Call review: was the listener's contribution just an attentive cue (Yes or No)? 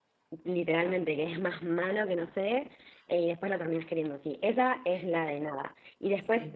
Yes